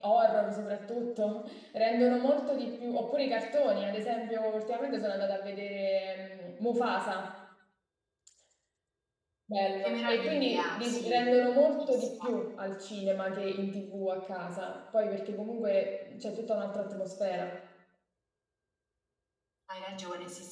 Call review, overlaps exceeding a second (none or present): present